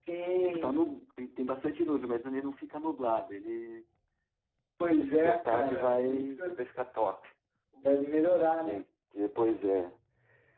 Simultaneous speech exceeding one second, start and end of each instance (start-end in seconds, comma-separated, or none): 5.0-6.6